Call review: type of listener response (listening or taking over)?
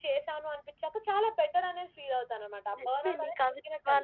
taking over